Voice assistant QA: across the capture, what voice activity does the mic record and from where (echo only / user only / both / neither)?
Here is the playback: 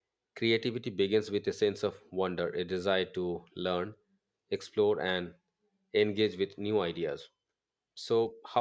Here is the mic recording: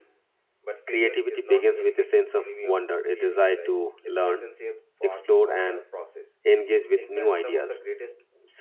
both